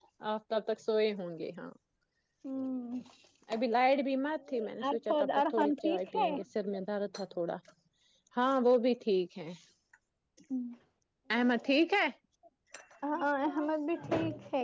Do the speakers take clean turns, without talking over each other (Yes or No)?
No